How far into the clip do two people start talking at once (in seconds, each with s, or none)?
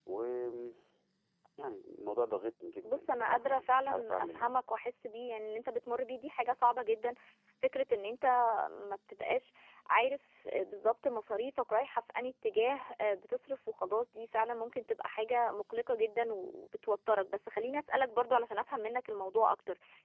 2.8 s